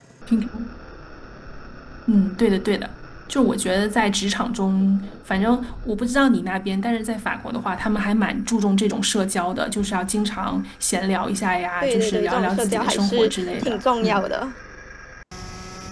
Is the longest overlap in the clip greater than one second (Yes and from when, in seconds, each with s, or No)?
Yes, from 11.8 s